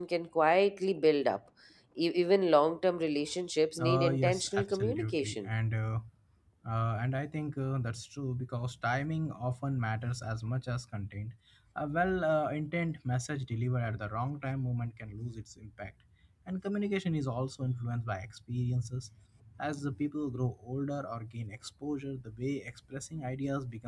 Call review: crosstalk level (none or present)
present